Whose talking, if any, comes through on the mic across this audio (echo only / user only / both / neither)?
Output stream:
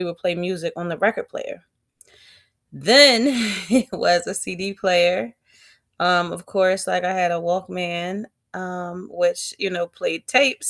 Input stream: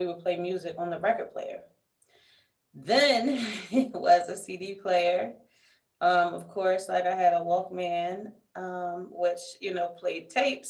echo only